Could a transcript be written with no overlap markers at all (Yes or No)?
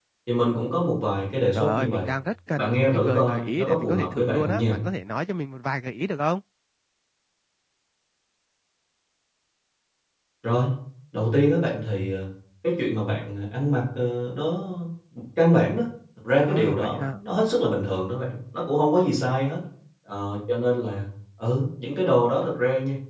No